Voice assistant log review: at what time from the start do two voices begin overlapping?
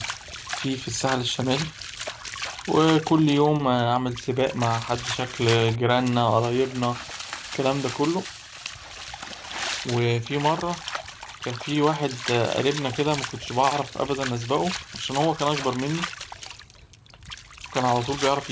none

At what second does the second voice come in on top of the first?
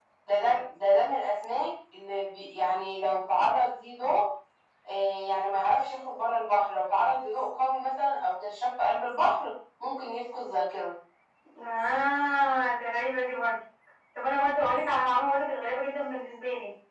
none

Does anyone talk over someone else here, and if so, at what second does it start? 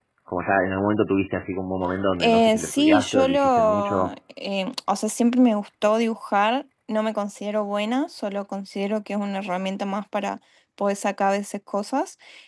2 s

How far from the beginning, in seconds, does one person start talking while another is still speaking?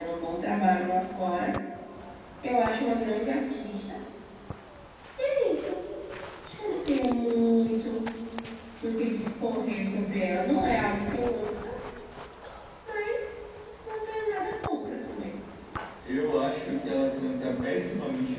none

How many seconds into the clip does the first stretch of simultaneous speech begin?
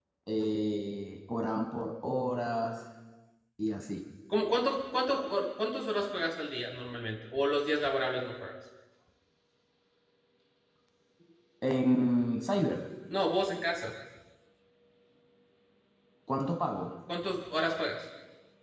none

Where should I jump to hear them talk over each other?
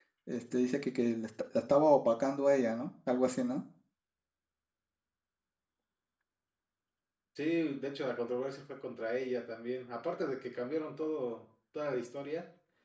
none

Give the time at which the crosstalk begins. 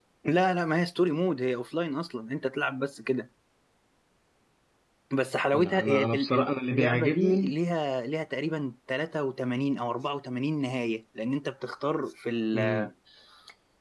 6 s

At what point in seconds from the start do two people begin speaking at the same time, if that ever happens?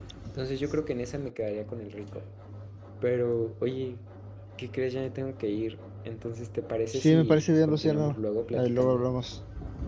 7 s

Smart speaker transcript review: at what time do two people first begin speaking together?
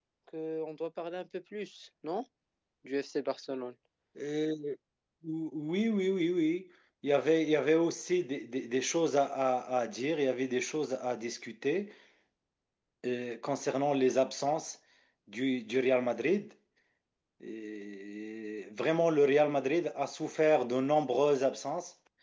none

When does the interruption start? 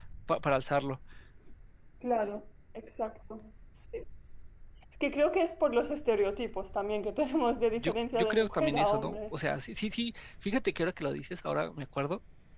8 s

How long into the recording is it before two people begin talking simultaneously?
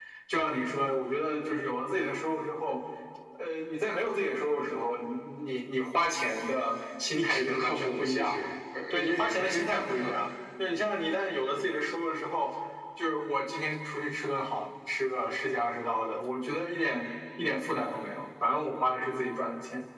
7 s

